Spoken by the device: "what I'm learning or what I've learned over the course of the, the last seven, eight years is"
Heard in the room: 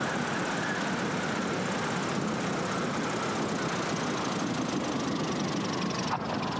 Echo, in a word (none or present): none